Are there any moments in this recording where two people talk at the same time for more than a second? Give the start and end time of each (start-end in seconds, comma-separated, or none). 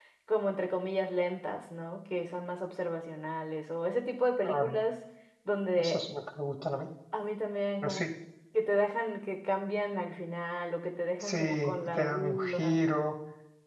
11.2-12.9